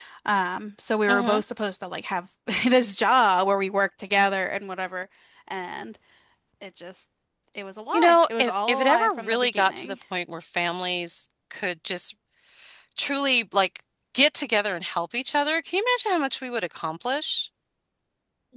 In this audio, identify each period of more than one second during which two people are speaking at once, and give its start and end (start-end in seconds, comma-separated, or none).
7.9-9.9